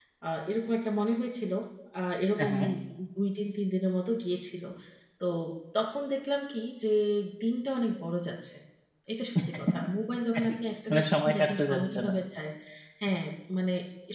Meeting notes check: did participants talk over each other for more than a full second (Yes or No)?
Yes